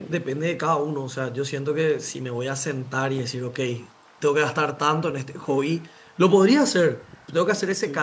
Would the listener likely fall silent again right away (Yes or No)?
Yes